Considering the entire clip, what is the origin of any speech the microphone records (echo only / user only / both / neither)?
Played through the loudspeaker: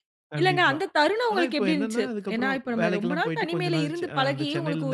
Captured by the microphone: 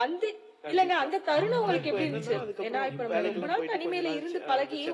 both